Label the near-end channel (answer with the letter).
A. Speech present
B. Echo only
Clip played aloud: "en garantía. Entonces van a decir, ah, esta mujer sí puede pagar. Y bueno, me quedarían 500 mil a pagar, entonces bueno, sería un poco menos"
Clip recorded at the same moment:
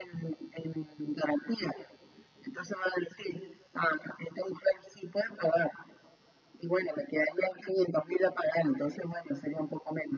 B